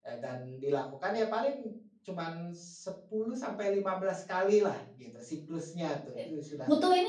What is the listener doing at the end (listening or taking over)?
taking over